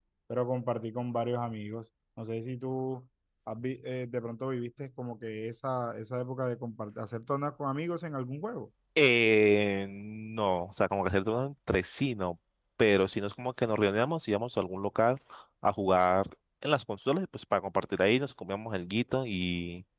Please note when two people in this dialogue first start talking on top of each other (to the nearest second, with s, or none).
none